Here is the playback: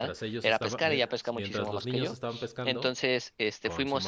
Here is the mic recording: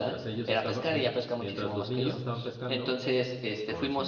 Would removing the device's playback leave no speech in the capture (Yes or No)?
Yes